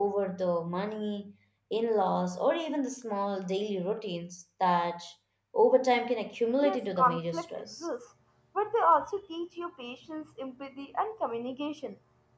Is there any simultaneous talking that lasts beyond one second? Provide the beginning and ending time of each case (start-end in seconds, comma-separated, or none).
6.6-7.9